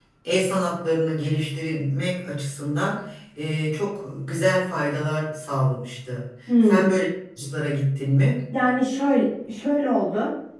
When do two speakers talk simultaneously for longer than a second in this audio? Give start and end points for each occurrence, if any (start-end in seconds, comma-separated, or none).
none